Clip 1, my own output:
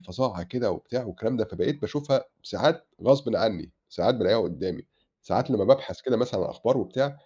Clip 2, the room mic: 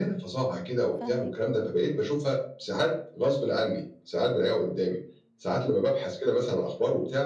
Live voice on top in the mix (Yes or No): No